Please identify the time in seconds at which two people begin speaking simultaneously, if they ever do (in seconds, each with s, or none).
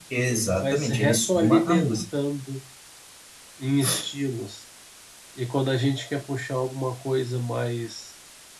0.6 s